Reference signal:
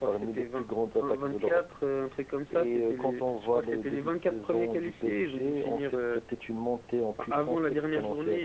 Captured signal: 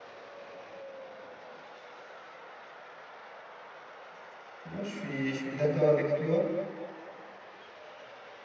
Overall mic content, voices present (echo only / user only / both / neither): user only